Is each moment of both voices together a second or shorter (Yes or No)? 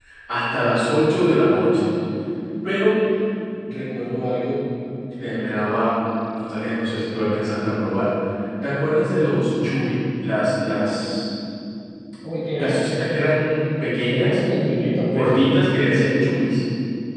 Yes